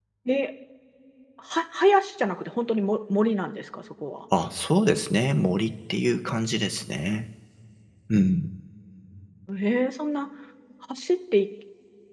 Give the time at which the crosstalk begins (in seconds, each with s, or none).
none